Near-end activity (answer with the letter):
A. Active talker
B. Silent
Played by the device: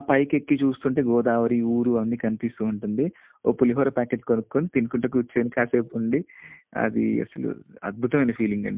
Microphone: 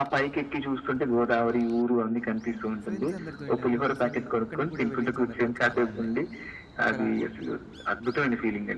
A